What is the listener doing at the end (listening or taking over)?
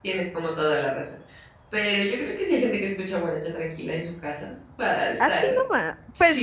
taking over